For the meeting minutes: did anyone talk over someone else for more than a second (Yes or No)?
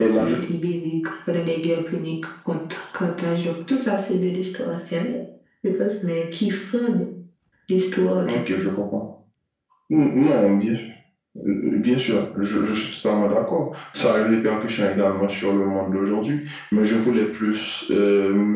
No